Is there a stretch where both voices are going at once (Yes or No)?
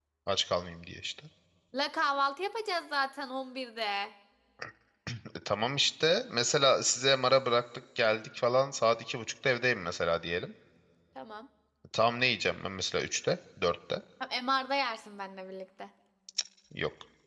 No